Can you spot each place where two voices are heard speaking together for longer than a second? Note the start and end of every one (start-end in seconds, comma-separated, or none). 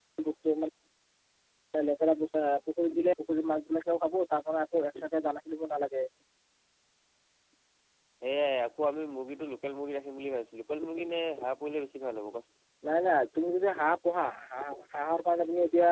none